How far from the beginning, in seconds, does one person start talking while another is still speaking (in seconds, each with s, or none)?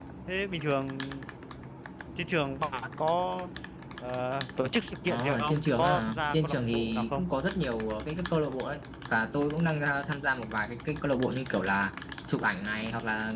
5.0 s